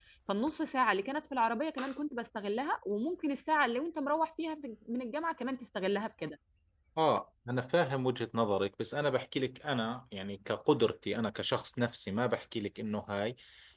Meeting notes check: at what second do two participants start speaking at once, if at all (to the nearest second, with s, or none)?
none